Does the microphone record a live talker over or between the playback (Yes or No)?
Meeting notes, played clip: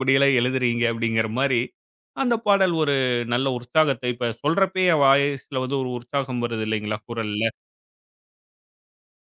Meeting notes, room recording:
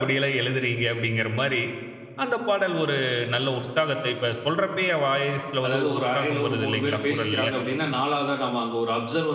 Yes